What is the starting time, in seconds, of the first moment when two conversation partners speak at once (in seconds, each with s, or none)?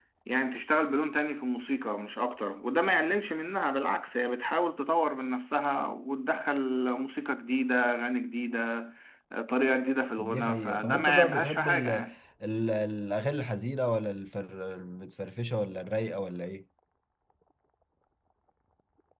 10.2 s